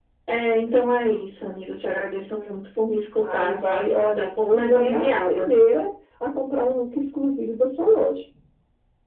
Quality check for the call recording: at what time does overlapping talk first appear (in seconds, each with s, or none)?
3.2 s